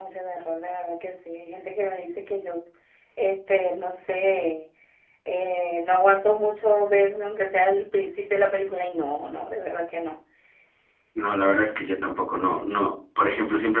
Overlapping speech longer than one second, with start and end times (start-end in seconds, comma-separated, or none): none